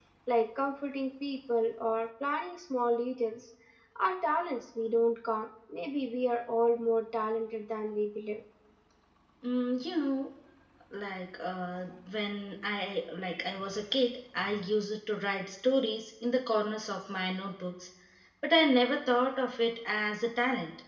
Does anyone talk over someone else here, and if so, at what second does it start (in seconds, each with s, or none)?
none